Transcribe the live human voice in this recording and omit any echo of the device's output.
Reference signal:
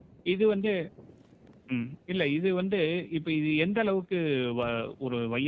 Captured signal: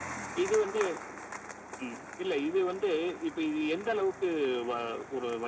none

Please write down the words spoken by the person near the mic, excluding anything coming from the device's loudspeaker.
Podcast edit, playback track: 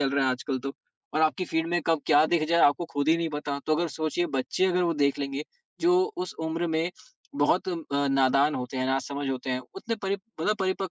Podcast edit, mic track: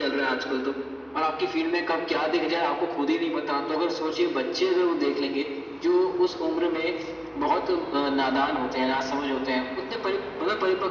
none

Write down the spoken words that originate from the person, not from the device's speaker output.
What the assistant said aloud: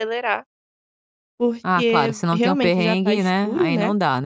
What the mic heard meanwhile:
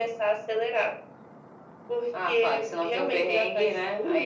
none

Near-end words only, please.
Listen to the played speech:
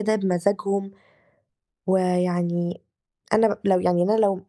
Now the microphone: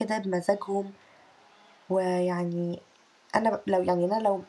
none

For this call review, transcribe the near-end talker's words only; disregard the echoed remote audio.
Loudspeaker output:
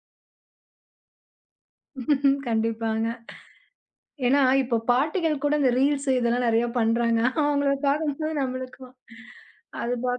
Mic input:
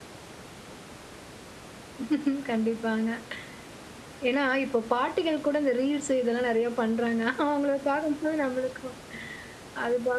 none

